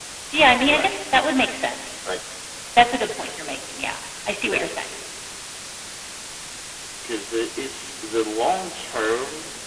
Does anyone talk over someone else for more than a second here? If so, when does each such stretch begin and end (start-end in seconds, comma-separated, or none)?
none